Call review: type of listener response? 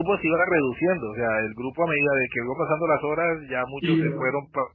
listening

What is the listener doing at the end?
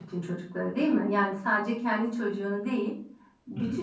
listening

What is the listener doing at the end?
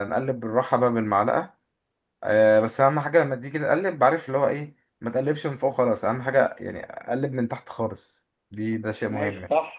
taking over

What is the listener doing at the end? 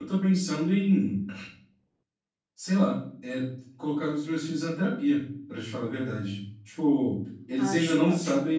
listening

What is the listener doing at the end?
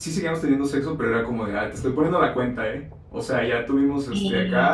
listening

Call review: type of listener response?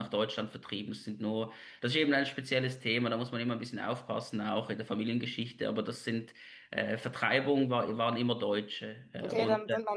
taking over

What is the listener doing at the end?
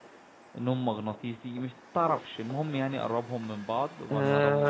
taking over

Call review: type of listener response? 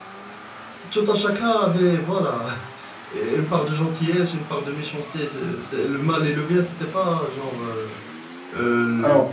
listening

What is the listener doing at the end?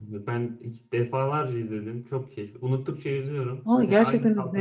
taking over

